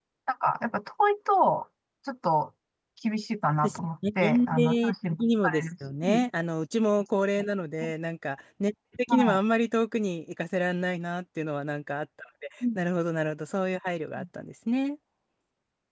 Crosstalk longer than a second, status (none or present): present